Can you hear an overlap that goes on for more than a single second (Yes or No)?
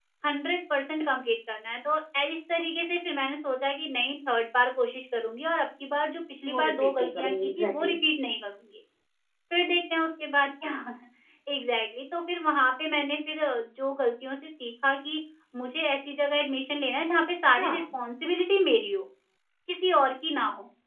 Yes